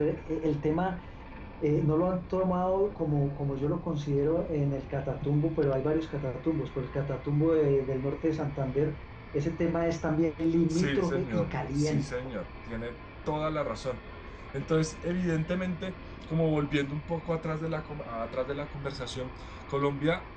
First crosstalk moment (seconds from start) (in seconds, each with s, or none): 10.7 s